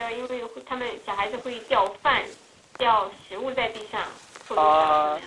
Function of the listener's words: taking over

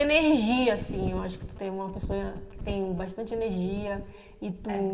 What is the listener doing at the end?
listening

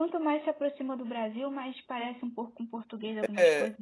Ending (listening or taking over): taking over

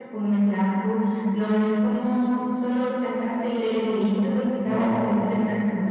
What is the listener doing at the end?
listening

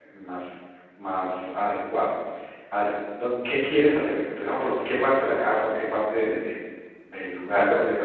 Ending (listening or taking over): taking over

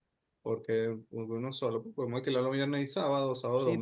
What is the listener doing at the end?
taking over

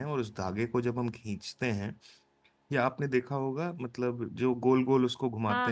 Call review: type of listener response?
taking over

